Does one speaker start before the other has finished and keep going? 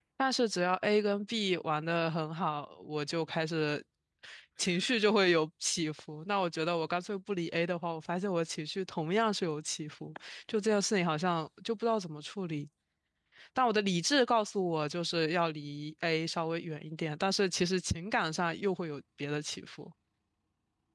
No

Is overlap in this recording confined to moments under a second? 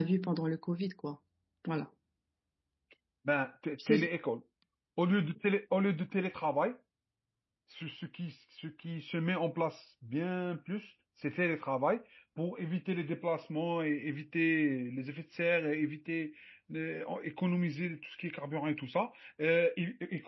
Yes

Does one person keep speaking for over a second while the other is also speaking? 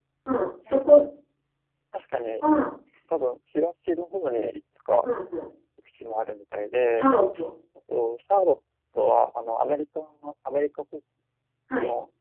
No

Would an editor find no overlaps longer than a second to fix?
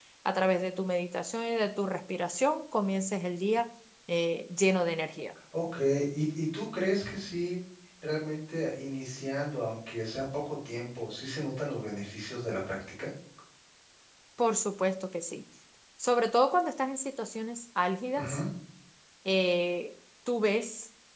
Yes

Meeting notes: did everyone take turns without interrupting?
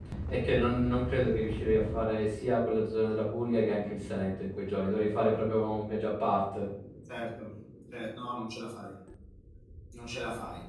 Yes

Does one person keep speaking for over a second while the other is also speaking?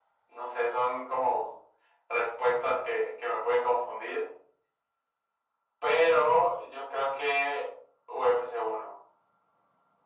No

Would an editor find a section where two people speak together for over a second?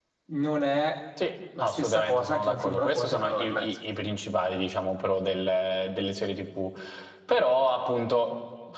Yes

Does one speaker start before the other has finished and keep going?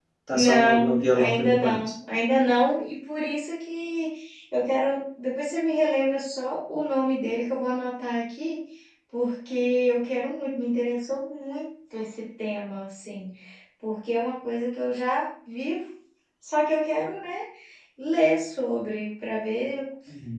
Yes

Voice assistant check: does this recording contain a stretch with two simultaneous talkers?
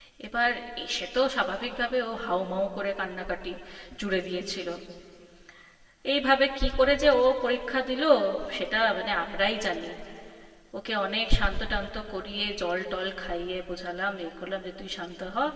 No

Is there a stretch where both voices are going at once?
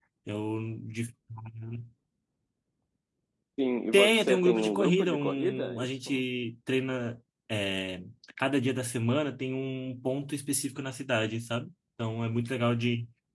Yes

